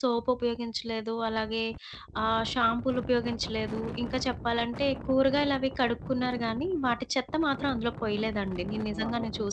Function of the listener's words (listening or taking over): taking over